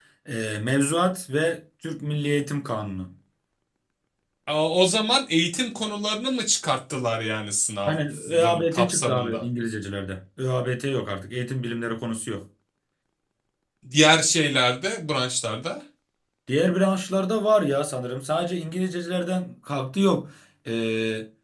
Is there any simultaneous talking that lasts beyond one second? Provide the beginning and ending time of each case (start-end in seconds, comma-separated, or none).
7.9-9.4